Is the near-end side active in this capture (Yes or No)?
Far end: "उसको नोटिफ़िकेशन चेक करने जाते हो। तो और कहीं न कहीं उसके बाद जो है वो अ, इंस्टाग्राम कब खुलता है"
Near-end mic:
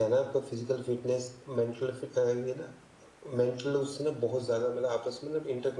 Yes